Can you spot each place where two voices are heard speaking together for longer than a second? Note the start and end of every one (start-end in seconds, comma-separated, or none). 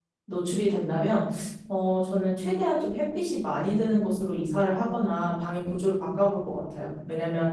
none